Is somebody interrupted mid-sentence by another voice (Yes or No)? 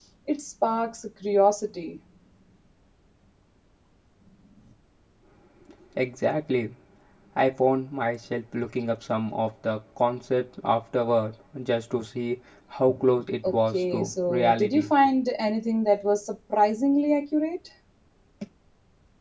Yes